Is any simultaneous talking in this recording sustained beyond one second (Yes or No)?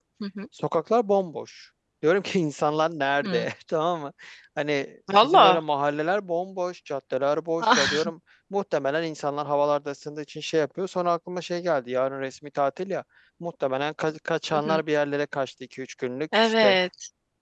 No